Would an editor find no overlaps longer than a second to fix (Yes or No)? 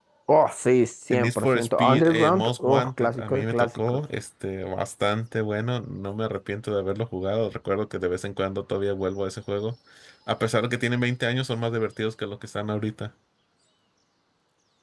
No